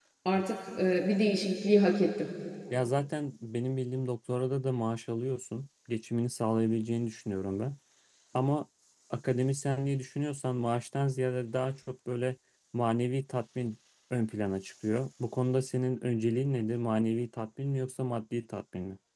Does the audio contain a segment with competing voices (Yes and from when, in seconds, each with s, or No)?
No